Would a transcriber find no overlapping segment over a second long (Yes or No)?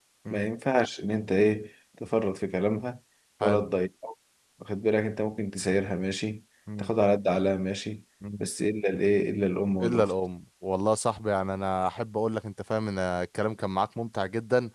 Yes